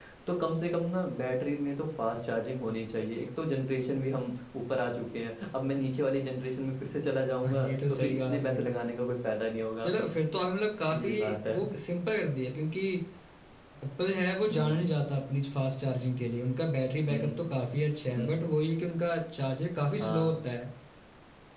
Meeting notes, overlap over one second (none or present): present